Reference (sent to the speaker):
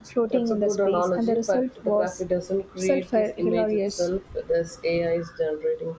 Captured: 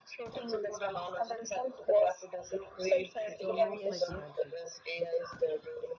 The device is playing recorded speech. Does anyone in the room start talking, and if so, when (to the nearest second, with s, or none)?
3 s